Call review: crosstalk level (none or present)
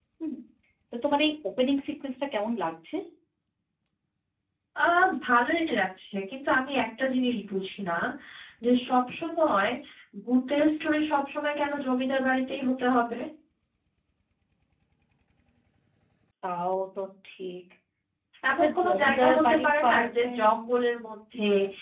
present